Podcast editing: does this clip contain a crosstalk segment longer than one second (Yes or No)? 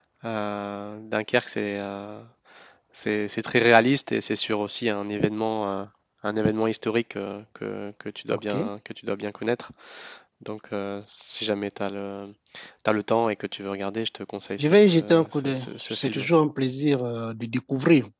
Yes